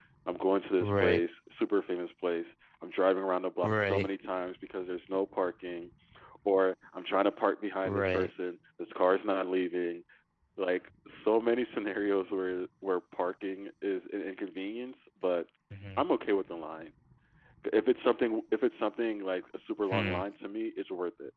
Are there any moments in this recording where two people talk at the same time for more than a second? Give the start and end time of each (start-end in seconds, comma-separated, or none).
none